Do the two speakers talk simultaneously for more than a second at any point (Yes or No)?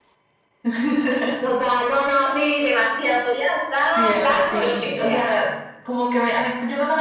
Yes